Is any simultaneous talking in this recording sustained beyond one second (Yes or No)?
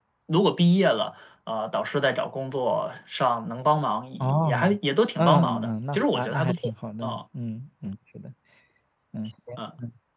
Yes